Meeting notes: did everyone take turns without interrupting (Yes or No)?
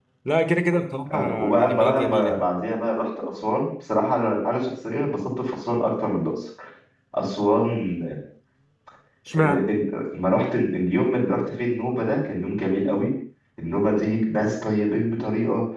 No